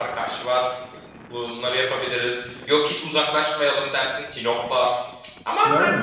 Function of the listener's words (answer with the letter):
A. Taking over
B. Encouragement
A